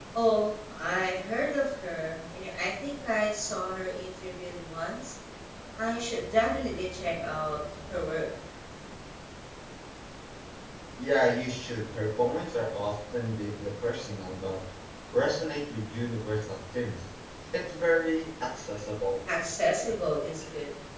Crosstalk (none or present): none